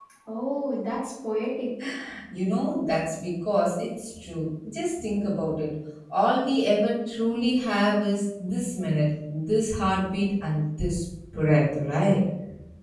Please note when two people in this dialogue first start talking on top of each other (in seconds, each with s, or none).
none